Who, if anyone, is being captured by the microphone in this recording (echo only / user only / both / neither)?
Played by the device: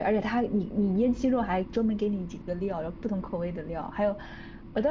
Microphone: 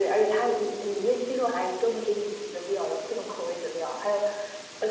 echo only